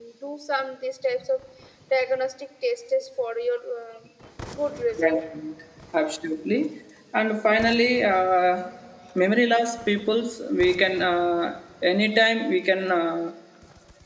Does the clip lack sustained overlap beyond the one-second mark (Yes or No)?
Yes